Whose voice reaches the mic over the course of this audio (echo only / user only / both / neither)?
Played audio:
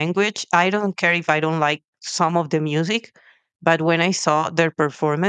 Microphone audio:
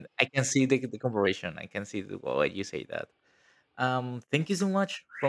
user only